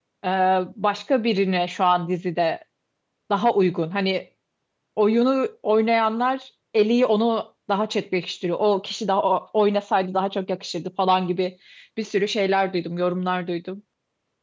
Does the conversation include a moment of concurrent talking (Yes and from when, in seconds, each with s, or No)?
No